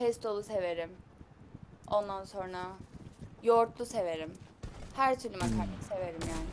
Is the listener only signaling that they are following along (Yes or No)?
Yes